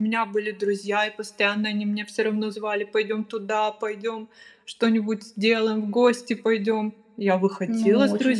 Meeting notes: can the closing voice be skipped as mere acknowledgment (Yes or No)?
No